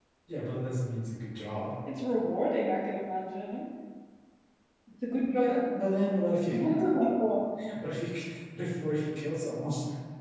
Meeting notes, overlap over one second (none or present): none